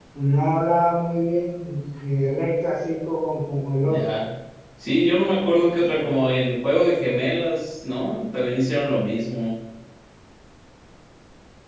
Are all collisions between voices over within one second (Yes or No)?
Yes